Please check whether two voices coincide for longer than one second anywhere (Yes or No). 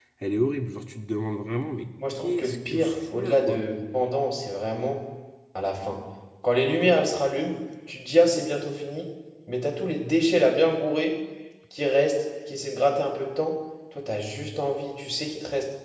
Yes